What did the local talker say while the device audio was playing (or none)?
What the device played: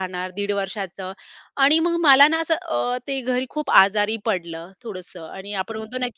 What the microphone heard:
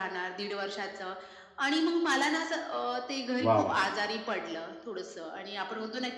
वाह! वाह!